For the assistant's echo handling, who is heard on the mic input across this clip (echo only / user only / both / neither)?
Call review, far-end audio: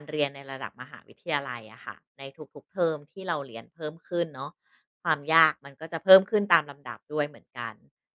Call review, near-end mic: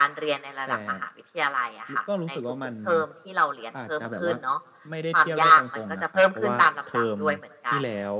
both